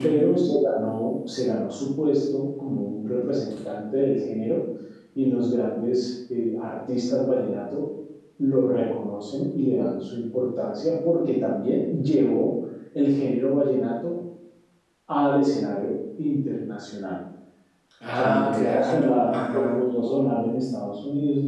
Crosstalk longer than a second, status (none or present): present